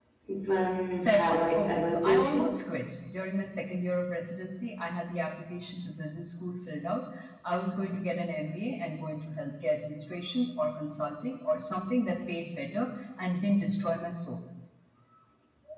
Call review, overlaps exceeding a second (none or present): present